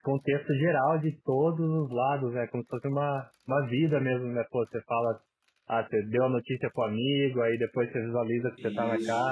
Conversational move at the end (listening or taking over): listening